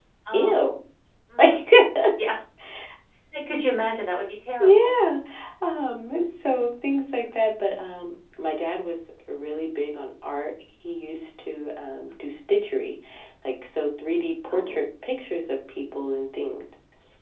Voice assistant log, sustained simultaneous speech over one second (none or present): none